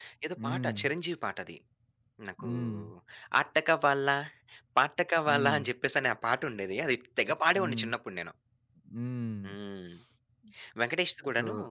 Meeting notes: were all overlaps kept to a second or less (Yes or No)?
Yes